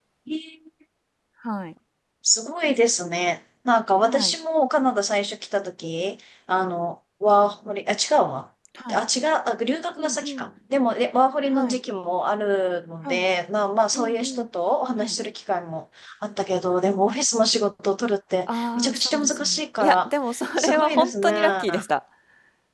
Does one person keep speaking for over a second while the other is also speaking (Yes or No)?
Yes